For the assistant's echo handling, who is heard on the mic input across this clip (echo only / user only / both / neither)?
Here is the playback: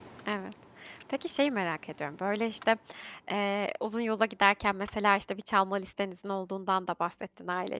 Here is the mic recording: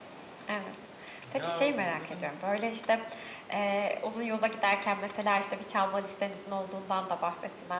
both